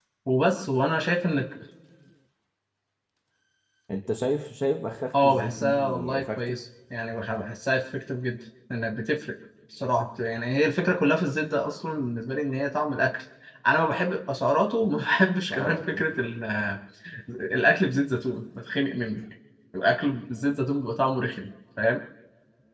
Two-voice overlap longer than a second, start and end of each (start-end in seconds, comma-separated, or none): 5.2-6.6